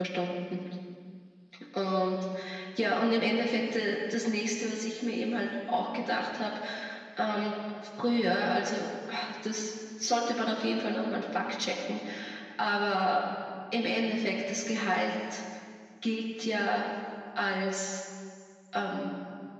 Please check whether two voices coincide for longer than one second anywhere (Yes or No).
No